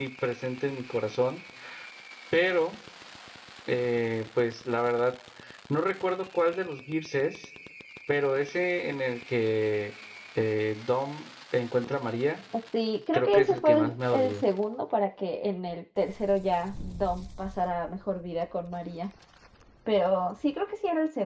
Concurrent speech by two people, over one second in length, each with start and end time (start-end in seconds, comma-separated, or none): 13.1-14.4